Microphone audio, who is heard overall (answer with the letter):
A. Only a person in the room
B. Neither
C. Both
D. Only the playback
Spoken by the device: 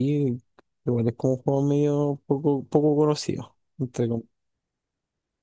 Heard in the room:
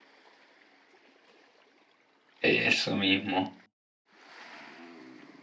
A